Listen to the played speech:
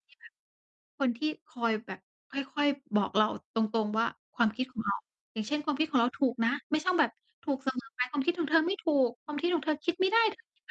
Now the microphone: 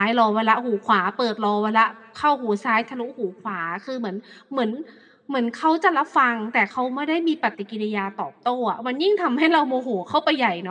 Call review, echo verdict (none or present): none